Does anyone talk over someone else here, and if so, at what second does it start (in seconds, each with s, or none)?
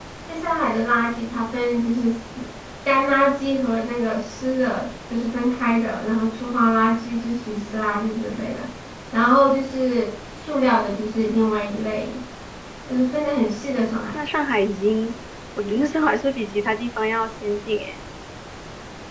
none